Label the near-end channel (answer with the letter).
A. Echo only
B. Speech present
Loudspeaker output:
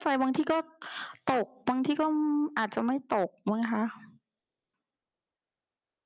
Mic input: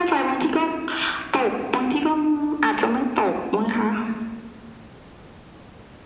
A